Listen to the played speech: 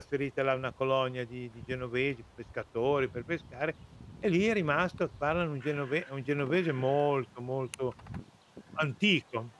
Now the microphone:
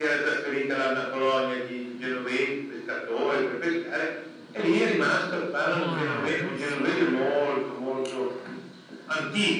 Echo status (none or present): present